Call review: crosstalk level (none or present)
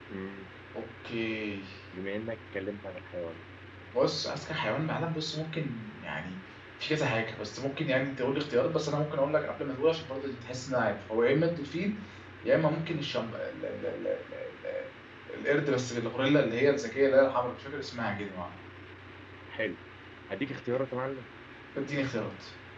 none